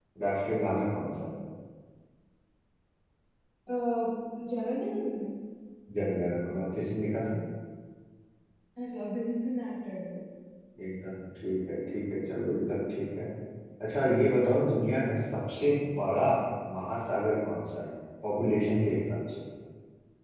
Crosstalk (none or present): none